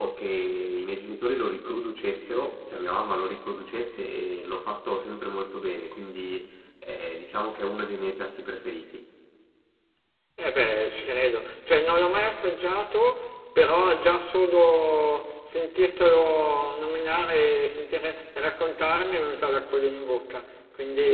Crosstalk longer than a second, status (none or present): none